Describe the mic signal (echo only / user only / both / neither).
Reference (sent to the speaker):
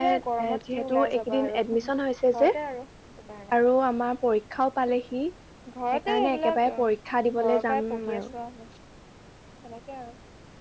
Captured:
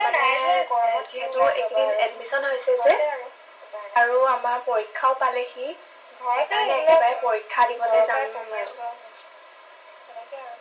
echo only